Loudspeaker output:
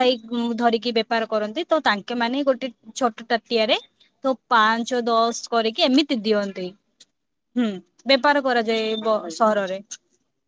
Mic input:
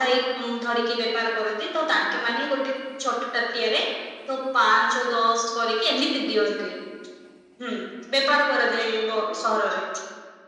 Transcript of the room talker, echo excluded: none

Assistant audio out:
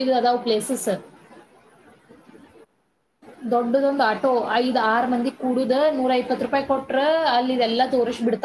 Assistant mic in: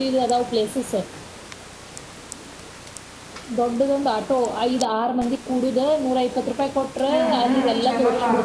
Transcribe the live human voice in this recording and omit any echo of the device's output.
ಹ್ಮ್ ಹ್ಮ್ ಚಲೋಣ

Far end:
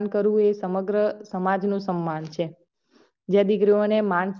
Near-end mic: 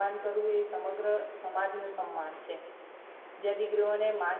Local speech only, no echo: none

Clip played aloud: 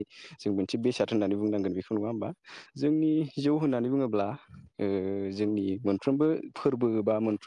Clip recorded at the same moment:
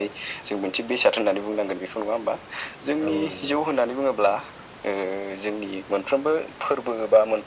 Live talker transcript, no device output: औ औ नंगौ

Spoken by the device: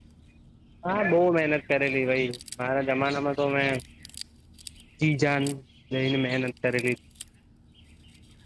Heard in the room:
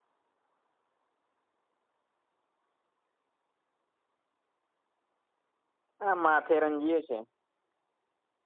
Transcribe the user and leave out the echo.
આ માથેરન જઈએ છે.

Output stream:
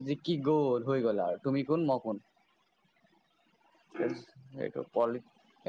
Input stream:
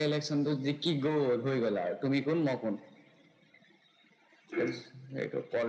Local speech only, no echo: none

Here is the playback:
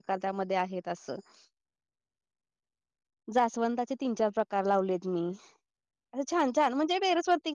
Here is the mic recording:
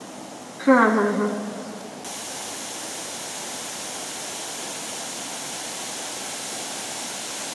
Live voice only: हा हा हा

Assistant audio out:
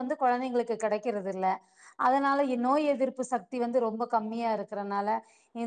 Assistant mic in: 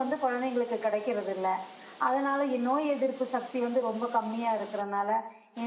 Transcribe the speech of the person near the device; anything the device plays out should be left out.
none

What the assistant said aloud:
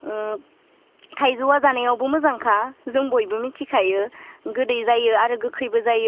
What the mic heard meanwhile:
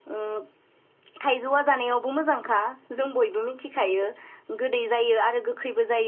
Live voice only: none

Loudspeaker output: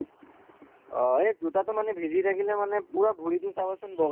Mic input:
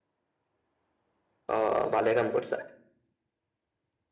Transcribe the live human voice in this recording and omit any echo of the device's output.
অ' ভালে কাম কৰিছা।

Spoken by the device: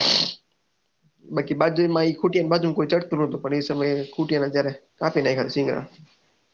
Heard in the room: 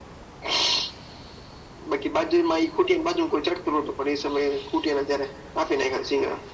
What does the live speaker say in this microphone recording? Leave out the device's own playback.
none

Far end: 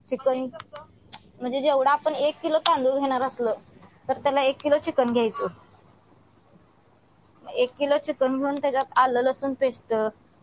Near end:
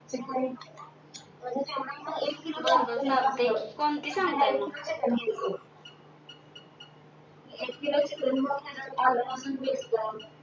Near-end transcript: बरं बरं चालतय की कोणती सांगताय मग.

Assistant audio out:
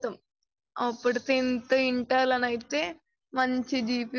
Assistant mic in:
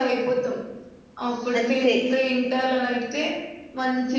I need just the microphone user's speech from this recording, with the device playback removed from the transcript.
అంతే

